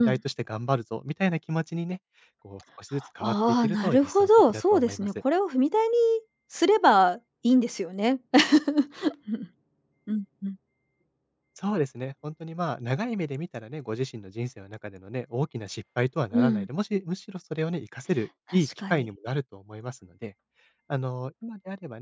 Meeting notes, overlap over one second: present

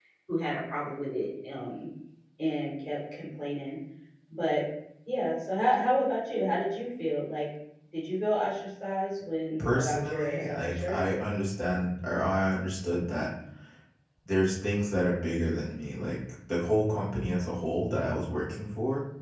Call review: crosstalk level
present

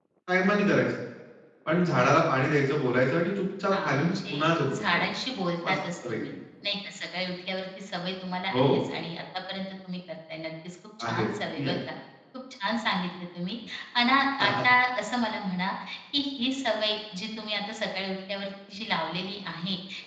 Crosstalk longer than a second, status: present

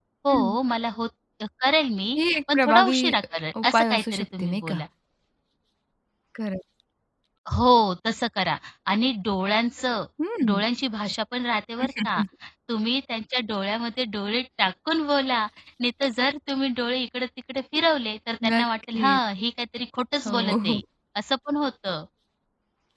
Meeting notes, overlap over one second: present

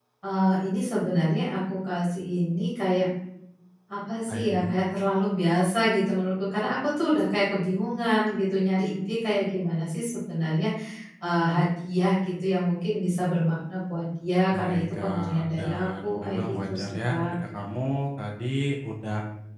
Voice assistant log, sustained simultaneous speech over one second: present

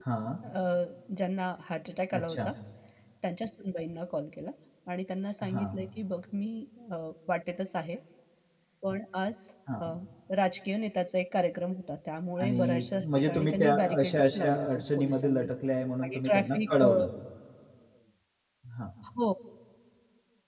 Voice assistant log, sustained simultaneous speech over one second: present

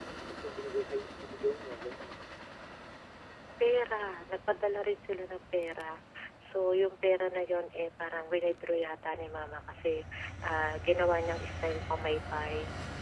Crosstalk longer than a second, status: none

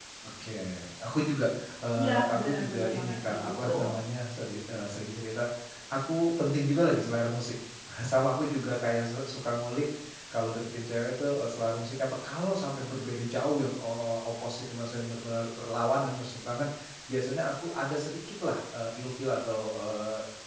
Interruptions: present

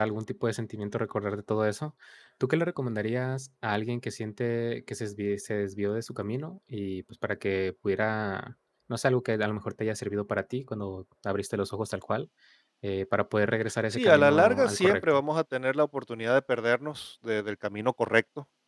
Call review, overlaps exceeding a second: present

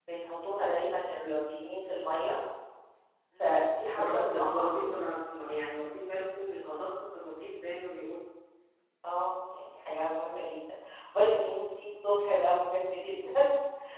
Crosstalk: present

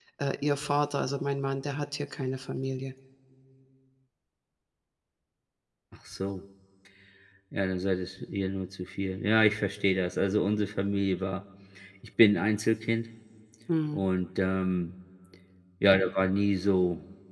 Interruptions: none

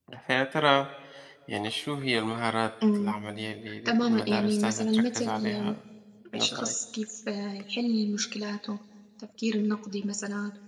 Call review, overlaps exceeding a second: present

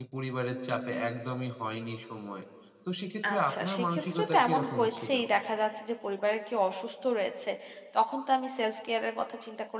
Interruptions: present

